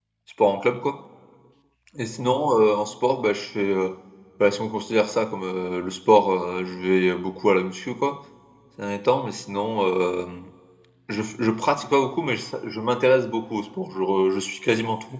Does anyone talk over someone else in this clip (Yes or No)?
No